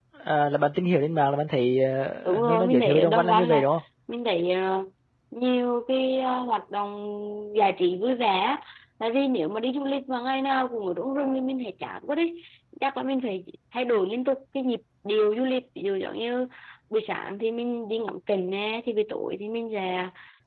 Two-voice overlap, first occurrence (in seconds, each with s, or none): 2.2 s